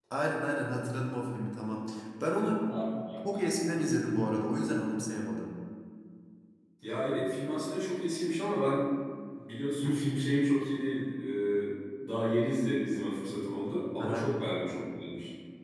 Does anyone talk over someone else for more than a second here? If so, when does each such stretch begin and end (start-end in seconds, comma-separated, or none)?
none